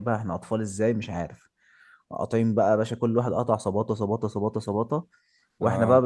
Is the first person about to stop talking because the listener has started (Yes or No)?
No